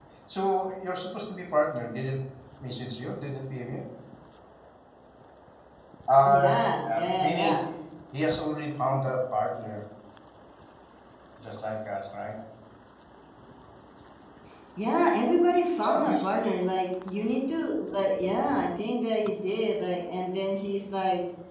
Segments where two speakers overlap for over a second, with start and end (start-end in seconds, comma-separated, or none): 6.2-7.6